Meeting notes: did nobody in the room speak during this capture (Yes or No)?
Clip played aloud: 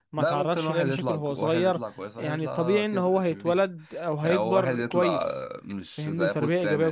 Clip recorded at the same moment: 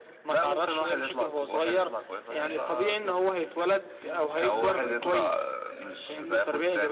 No